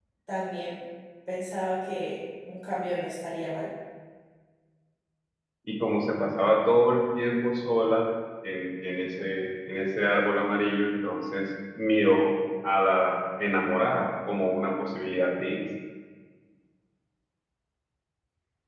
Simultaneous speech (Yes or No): No